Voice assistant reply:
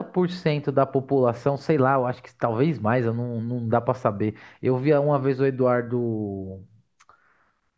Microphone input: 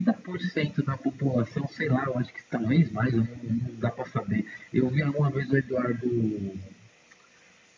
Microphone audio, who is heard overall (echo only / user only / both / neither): echo only